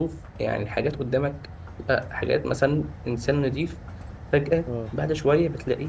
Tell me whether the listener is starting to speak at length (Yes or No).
No